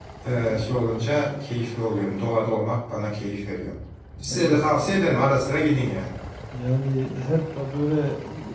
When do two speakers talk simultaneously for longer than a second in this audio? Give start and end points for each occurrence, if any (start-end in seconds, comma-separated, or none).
none